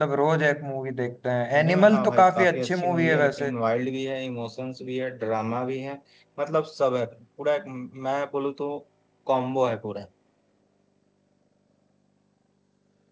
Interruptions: present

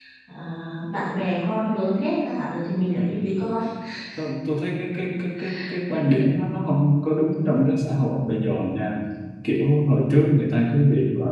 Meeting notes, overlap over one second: none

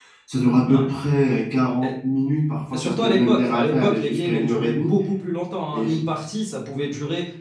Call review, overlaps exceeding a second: present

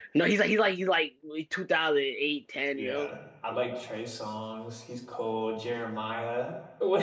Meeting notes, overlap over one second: none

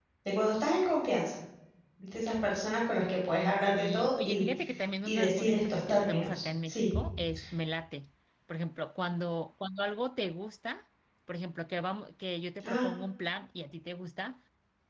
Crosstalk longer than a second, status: present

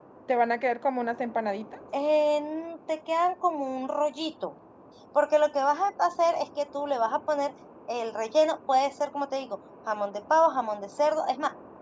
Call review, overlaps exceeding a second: none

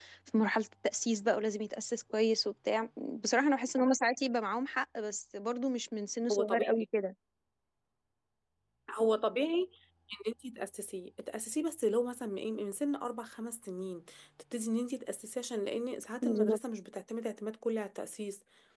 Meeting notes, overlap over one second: none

